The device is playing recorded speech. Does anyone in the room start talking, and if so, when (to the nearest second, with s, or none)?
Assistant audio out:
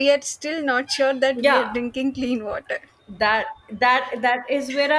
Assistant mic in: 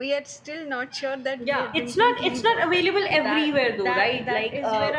2 s